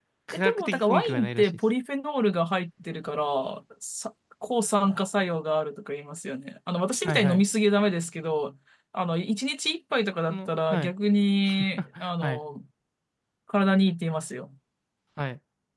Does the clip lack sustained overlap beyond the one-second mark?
No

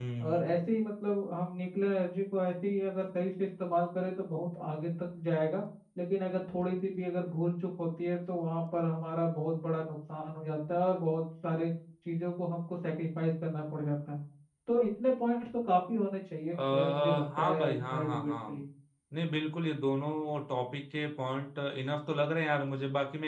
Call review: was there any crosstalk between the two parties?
Yes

